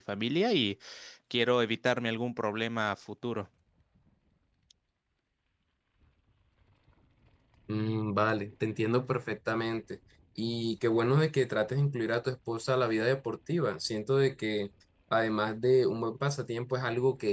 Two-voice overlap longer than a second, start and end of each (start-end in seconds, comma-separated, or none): none